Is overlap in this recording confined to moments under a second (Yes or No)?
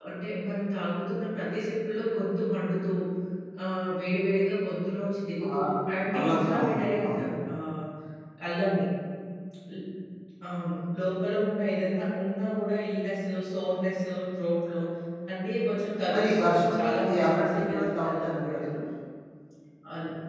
No